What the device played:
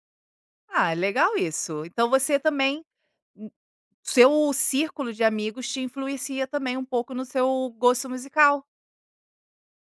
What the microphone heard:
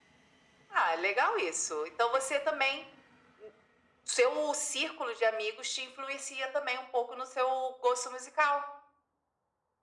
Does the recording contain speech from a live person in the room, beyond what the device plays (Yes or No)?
No